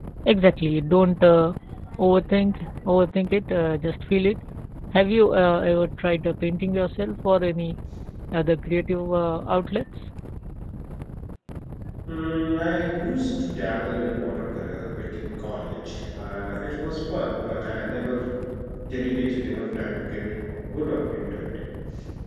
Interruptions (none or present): none